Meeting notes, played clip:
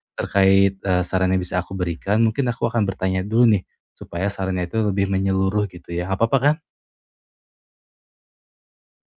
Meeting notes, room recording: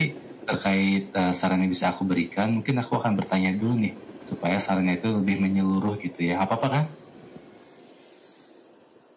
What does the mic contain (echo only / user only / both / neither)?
echo only